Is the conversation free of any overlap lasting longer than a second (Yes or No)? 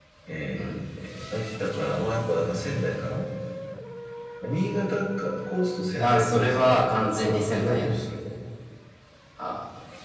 No